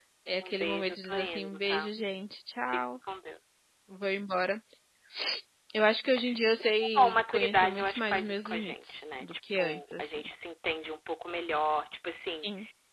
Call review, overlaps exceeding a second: present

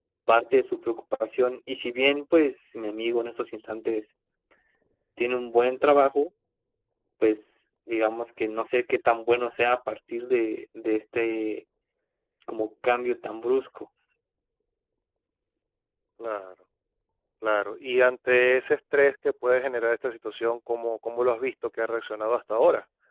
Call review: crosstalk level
none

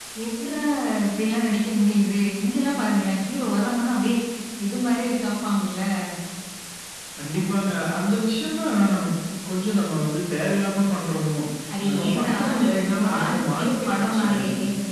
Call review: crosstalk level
present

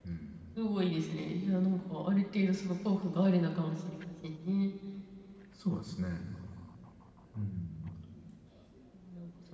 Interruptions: none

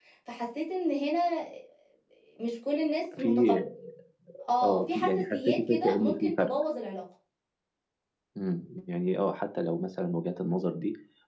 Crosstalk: present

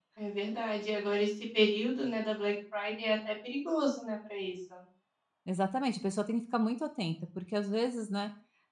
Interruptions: none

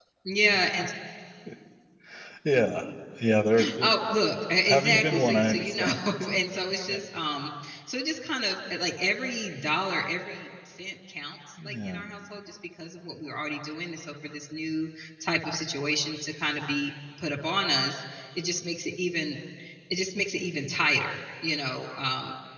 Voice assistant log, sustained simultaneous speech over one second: present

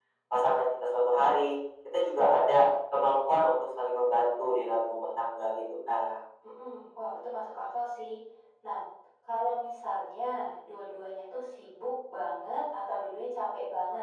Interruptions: none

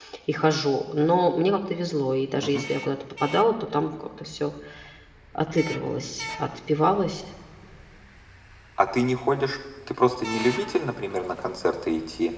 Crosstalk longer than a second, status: none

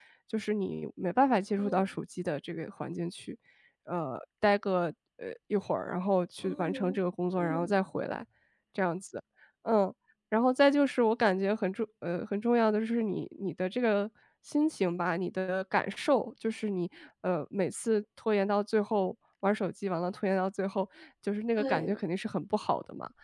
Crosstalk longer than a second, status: none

